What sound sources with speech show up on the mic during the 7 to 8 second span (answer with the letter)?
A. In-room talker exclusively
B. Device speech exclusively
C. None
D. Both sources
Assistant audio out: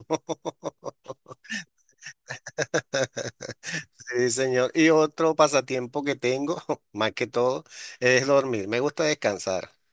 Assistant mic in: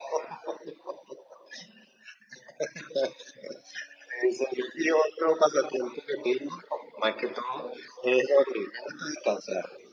B